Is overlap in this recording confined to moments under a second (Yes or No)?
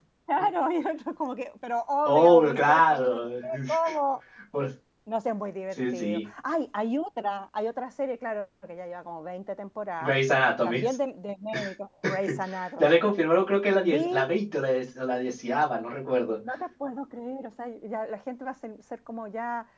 No